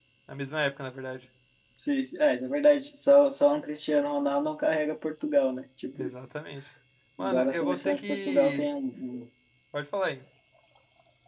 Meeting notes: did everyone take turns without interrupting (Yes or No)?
No